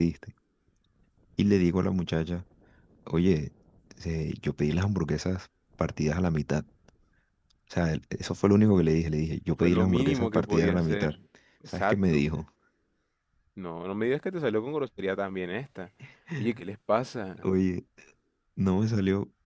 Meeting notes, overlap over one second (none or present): present